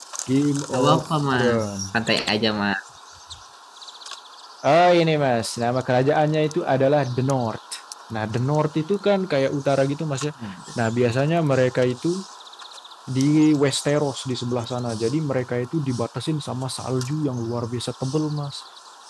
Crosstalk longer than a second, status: present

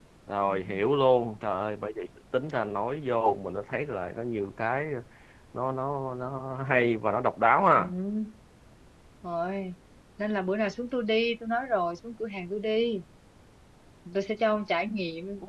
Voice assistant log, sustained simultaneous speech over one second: none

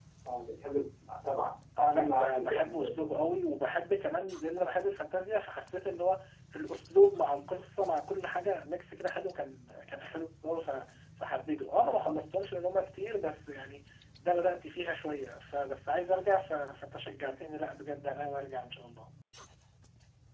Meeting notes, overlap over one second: present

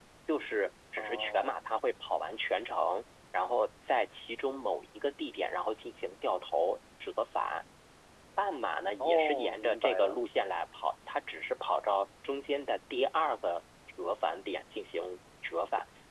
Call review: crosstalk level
present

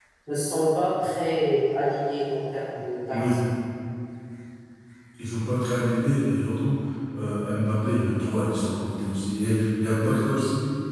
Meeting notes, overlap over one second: none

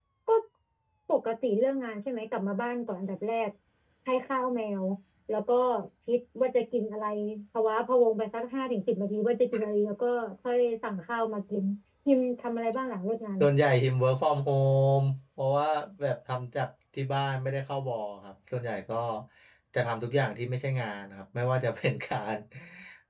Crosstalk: none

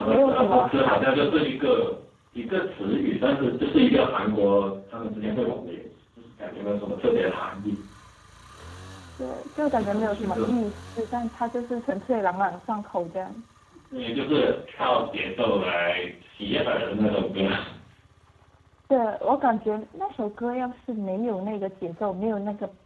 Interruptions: present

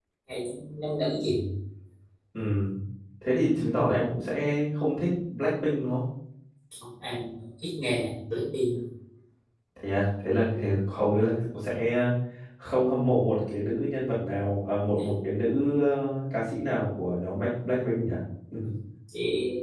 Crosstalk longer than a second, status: none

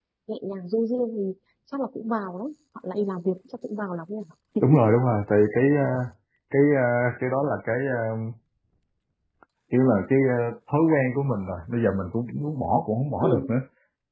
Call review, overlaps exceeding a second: none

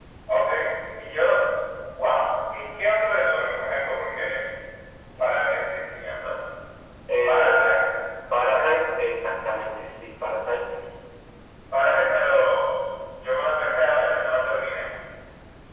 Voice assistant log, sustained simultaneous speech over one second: none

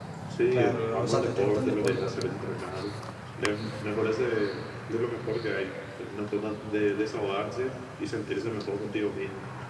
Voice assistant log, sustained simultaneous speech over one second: present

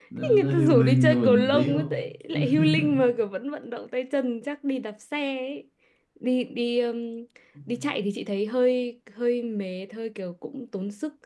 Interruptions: present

